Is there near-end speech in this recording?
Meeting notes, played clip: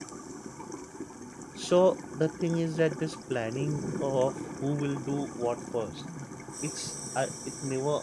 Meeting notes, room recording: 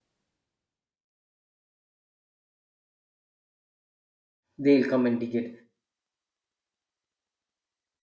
Yes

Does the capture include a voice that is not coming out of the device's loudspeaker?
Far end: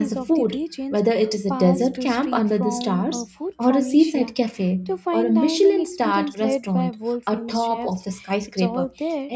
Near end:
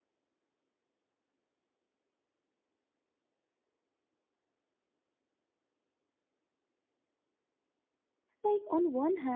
Yes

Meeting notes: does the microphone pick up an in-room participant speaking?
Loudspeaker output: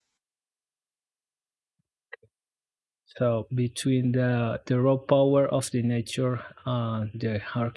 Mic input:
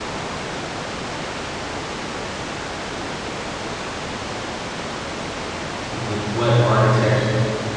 Yes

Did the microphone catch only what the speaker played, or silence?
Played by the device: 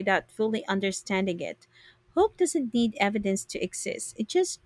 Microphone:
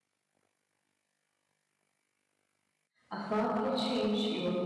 No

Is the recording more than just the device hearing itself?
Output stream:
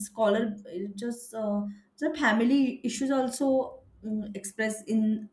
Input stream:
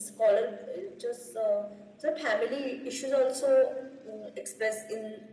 No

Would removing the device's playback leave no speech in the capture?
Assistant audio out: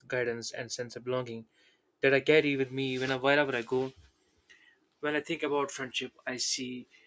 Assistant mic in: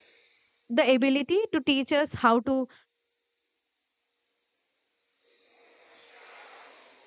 No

